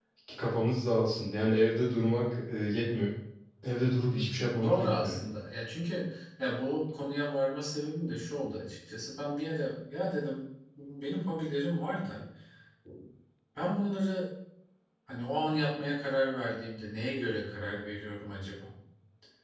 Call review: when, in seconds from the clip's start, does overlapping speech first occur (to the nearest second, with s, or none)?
4 s